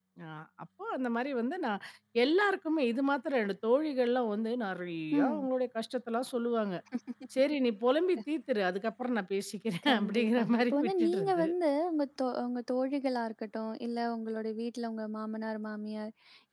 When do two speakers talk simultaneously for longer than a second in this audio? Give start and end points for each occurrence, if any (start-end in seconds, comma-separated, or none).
9.9-11.4